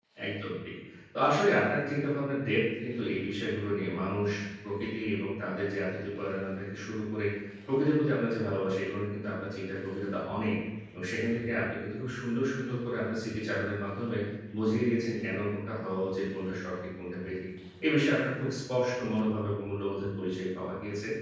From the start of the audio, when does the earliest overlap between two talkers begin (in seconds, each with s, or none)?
none